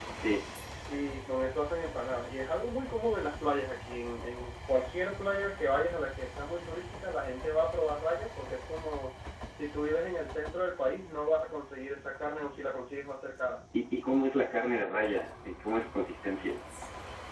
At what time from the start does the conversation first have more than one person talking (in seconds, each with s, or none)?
none